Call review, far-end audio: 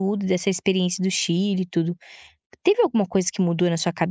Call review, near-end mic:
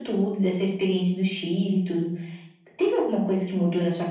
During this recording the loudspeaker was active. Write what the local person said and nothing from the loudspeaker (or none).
none